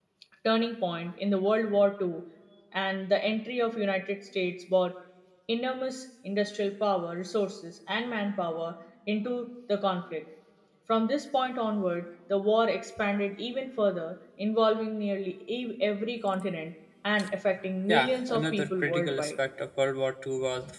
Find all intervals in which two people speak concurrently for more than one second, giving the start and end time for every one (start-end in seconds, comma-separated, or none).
17.9-19.3